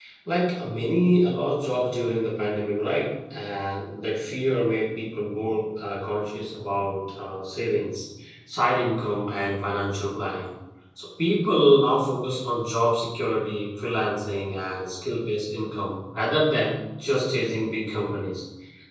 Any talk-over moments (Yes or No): No